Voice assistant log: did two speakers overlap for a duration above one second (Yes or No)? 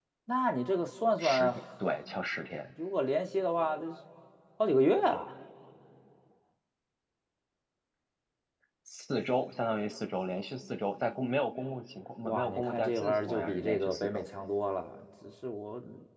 Yes